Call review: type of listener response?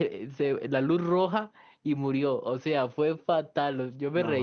listening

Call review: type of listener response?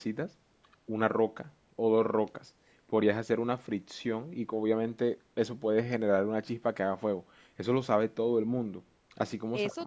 taking over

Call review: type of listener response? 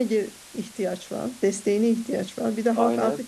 listening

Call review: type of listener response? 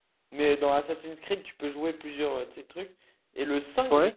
listening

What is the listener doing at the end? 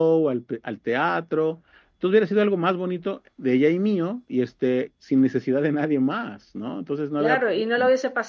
taking over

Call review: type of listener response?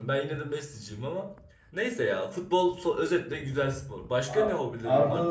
taking over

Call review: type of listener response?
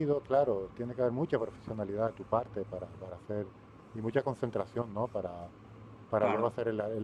listening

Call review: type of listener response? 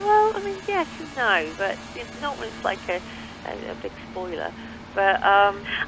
taking over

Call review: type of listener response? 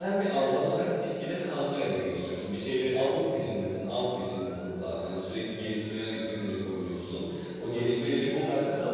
taking over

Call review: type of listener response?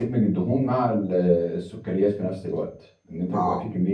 listening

